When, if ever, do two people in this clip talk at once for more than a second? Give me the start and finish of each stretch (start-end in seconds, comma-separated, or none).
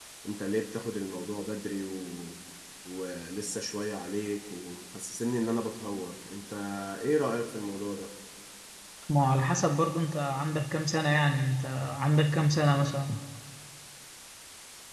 none